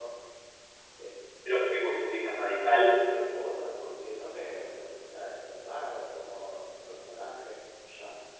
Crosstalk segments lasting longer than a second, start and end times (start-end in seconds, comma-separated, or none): none